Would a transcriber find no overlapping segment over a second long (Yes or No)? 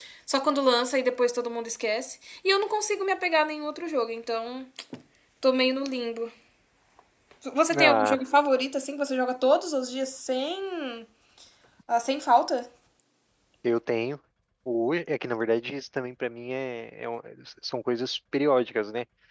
Yes